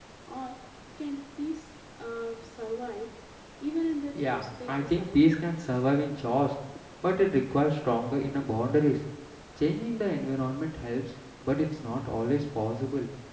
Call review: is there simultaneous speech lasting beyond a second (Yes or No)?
Yes